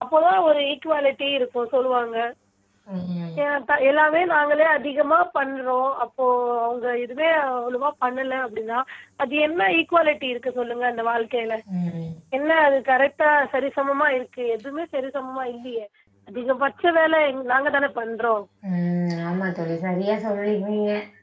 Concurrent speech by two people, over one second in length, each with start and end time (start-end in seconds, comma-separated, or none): none